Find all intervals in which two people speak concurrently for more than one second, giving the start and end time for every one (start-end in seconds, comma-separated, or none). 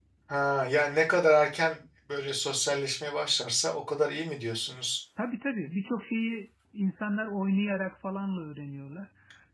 none